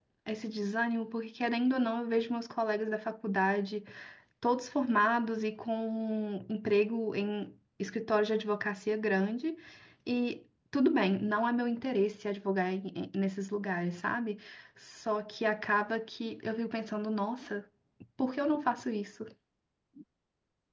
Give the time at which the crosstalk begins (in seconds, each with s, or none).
none